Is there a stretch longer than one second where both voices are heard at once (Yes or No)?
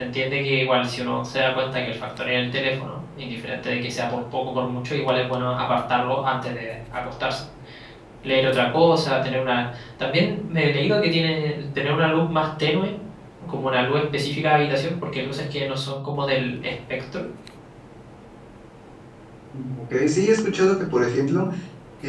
No